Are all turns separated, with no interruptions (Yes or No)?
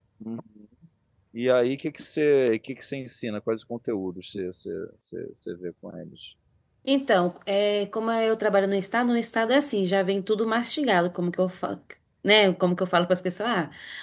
Yes